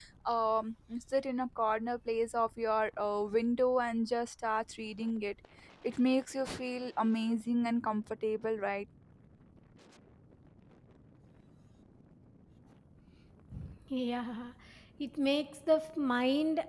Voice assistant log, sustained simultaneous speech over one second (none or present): none